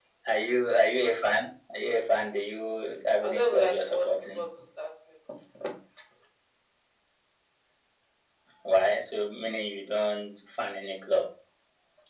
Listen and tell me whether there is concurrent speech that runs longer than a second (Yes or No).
Yes